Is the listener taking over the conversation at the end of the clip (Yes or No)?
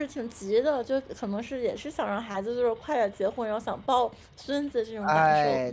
Yes